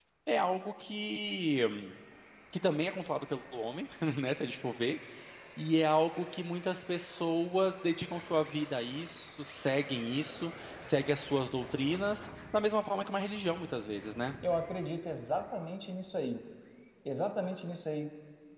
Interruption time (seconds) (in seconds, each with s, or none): none